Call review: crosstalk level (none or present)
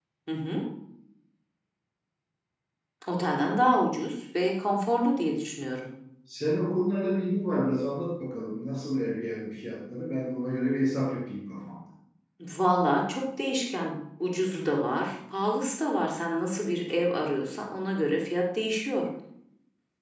none